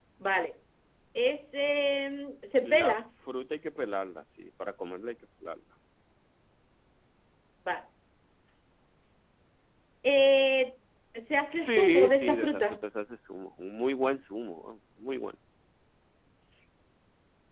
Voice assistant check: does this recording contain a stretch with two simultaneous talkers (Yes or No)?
Yes